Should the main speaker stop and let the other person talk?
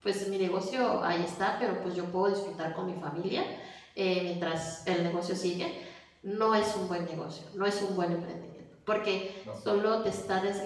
No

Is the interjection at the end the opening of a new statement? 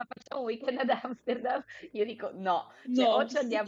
No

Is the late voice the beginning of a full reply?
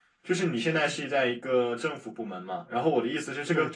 No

